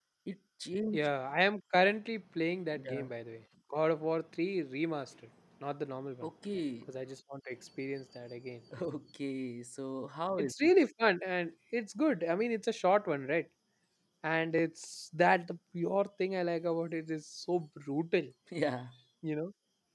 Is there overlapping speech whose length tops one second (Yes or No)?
No